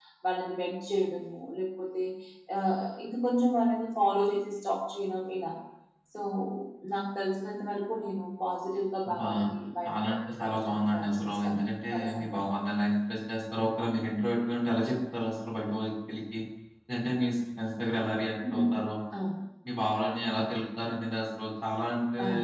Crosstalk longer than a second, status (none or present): present